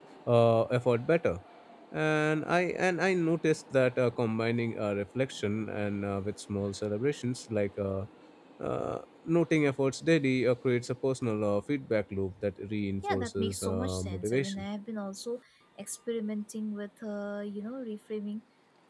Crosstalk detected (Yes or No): Yes